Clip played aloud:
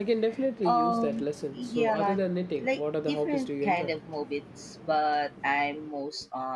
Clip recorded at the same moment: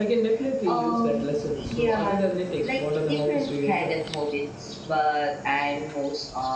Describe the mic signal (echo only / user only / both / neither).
echo only